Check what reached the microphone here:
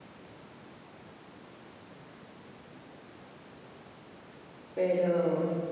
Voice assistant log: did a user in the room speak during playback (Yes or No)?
Yes